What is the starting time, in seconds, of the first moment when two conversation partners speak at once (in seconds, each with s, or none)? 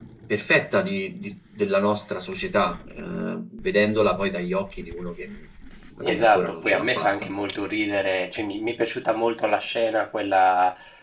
6.0 s